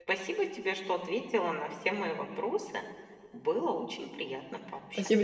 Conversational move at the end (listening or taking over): taking over